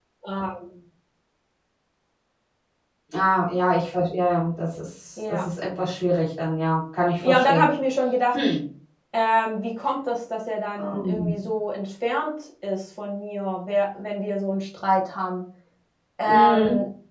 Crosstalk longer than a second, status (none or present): none